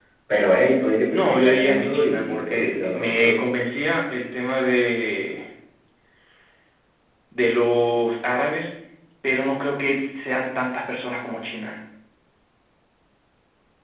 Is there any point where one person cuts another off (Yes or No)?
Yes